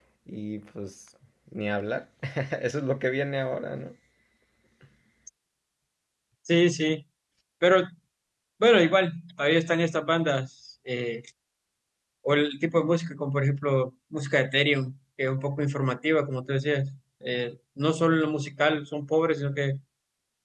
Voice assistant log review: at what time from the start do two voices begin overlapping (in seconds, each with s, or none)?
none